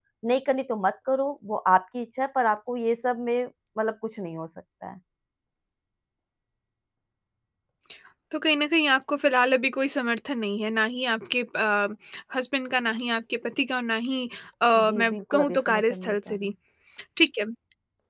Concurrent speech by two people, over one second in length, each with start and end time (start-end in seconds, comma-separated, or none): 14.8-16.5